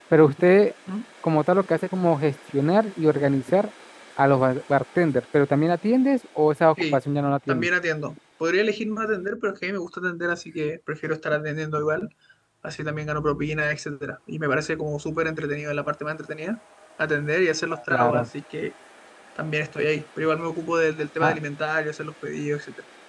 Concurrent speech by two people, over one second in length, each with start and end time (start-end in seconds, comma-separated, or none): none